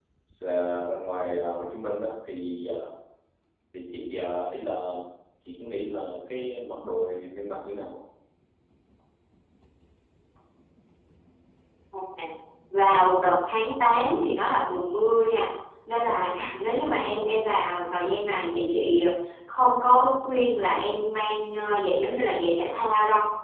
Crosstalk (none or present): none